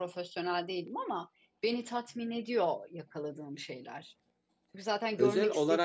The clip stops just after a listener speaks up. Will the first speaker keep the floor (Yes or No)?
No